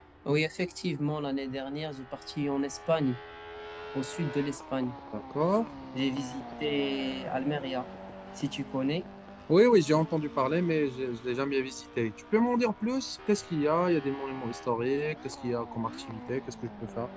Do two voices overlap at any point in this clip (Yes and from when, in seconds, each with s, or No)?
No